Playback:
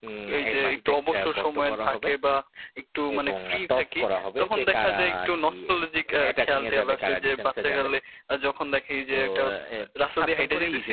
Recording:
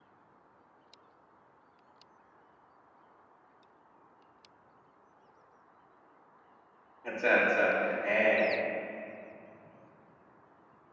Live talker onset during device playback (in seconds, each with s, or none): 7.1 s